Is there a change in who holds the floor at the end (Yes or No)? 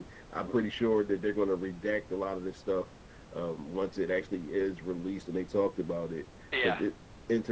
No